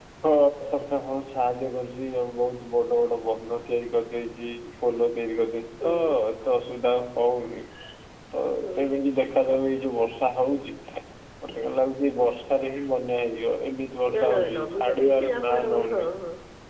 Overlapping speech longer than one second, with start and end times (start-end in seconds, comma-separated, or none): 14.2-16.1